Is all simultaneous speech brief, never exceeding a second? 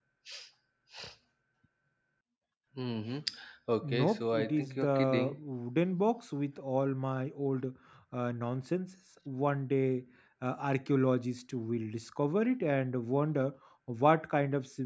No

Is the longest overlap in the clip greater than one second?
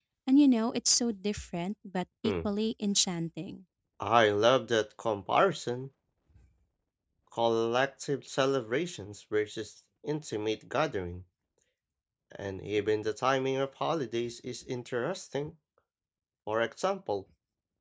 No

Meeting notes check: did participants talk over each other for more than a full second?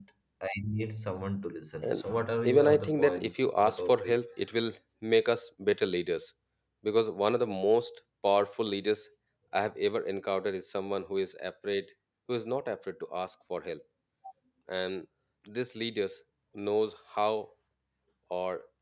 Yes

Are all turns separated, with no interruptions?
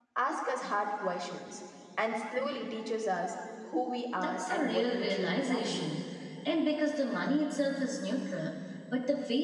No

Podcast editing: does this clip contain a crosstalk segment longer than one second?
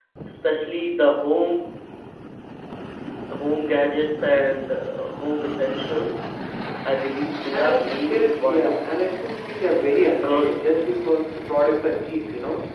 Yes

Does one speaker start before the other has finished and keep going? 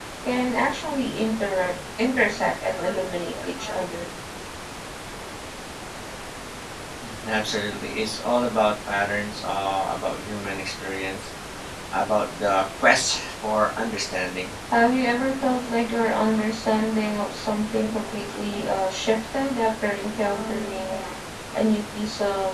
No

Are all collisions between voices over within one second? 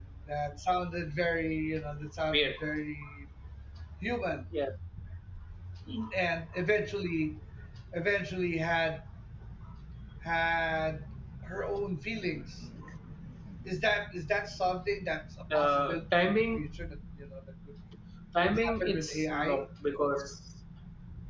No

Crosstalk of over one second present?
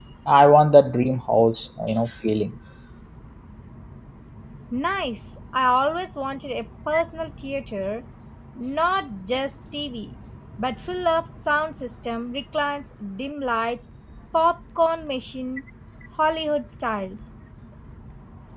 No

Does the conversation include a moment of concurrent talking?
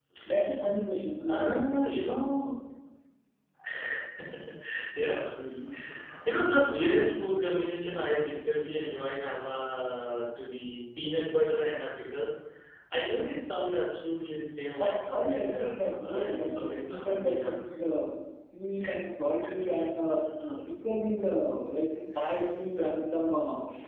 Yes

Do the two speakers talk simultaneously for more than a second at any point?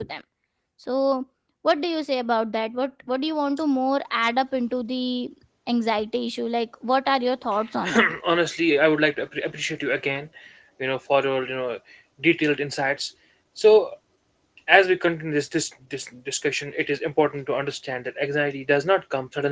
No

